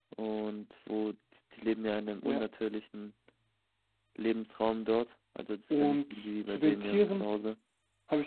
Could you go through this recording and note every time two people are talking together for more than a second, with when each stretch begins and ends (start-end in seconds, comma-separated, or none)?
5.7-7.3